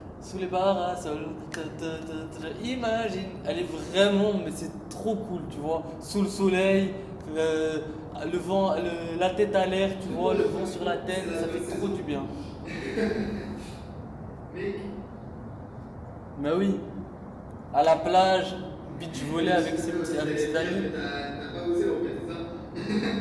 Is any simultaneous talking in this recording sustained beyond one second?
Yes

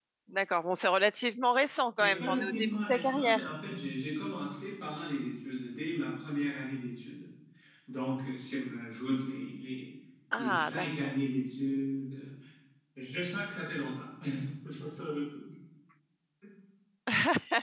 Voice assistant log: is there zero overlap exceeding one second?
No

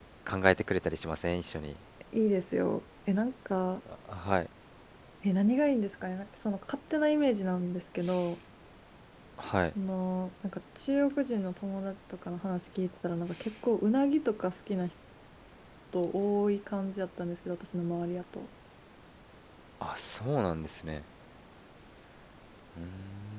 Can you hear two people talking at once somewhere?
No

